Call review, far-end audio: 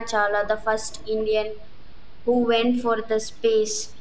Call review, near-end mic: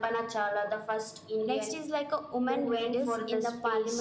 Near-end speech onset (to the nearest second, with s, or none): 1 s